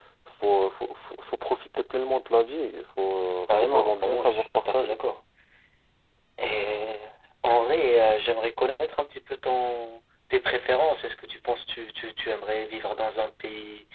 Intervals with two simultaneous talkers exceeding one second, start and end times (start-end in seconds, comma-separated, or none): 3.6-5.0